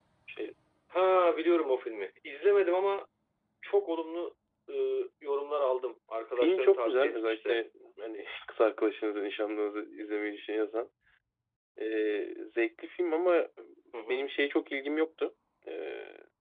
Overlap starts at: 6.3 s

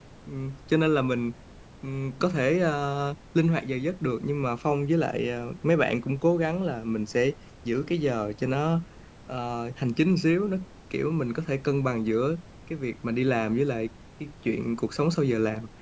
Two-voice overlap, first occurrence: none

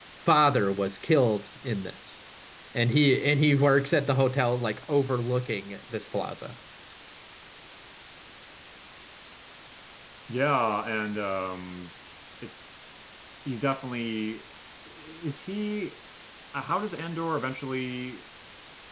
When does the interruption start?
none

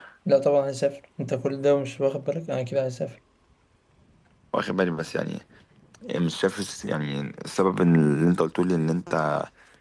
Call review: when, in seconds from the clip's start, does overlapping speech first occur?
none

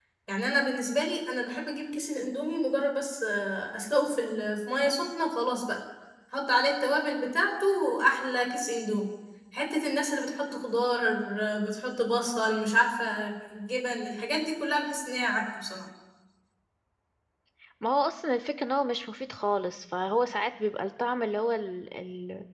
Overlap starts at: none

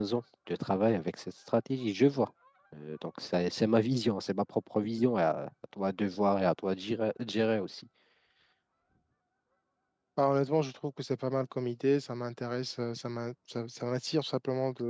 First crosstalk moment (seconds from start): none

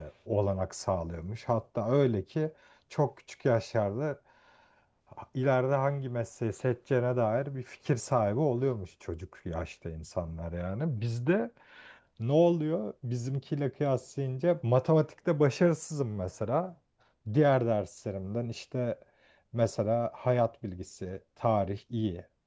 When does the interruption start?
none

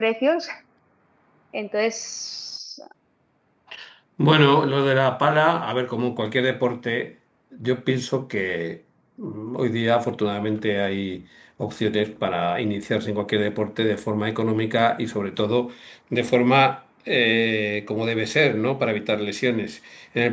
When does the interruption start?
none

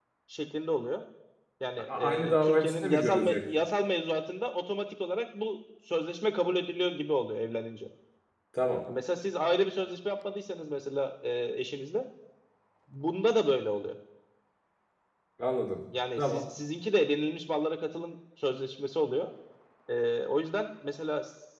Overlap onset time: 1.9 s

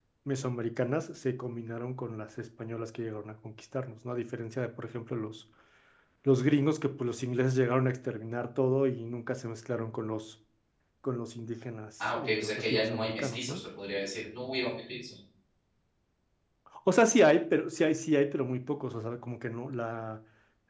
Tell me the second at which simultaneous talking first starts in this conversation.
12.0 s

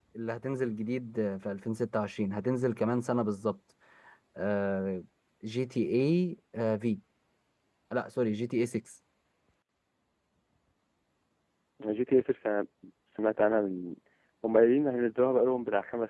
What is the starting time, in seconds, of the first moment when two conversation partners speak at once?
none

